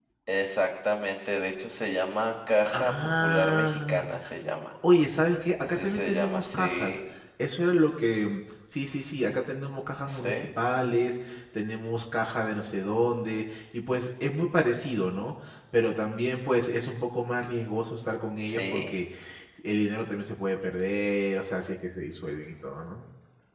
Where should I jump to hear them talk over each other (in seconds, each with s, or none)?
2.7 s